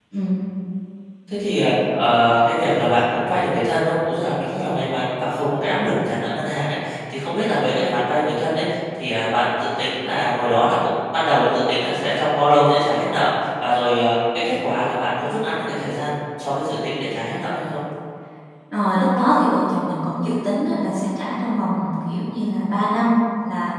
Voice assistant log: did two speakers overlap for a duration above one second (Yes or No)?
No